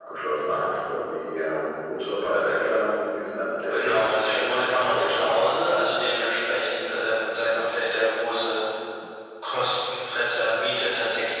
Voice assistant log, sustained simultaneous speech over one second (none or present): present